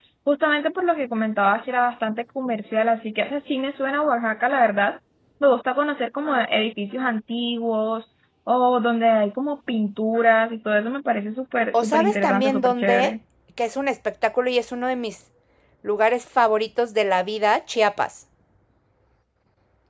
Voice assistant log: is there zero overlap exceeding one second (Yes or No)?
No